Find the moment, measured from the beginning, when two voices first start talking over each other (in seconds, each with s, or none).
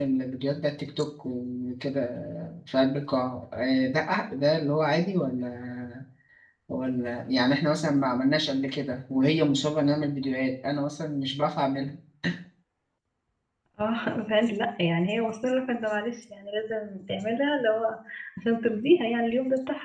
none